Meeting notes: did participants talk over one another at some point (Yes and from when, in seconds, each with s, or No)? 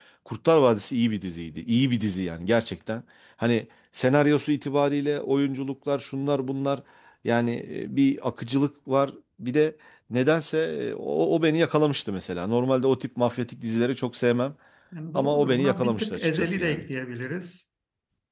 Yes, from 15.2 s